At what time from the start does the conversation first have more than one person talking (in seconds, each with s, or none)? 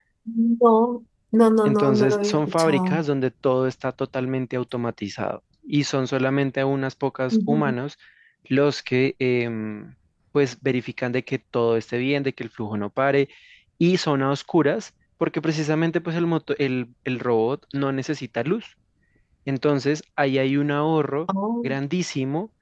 1.6 s